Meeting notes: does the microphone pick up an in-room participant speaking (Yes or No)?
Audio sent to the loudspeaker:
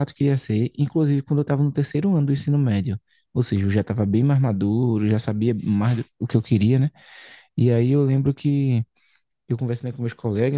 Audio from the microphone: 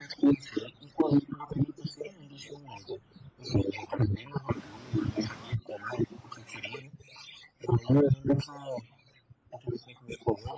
No